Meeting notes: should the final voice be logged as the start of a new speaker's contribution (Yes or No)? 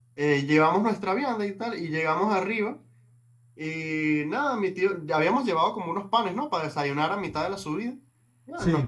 No